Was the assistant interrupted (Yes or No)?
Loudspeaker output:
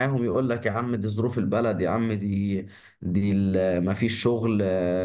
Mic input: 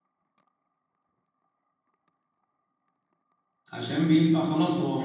Yes